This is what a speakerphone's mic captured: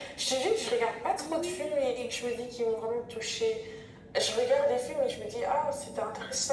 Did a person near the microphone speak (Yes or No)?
Yes